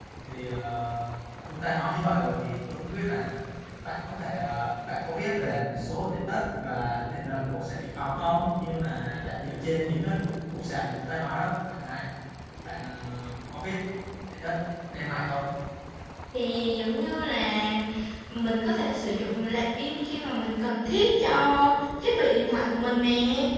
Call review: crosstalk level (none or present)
none